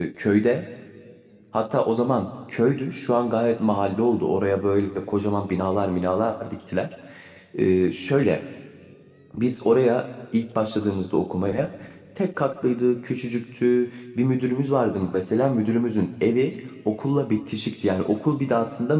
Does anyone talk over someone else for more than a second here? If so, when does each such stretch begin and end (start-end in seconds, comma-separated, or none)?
none